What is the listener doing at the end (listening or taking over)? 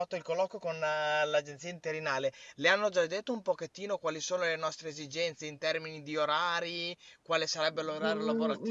taking over